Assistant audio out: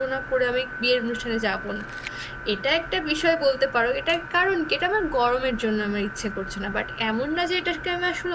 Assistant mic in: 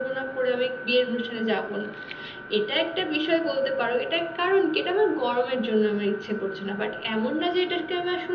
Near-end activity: none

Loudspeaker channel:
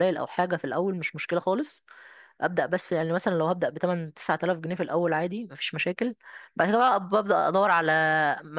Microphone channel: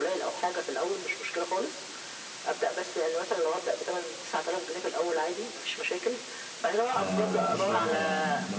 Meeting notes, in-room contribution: present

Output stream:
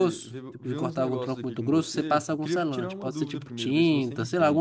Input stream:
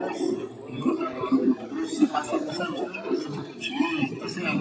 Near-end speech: present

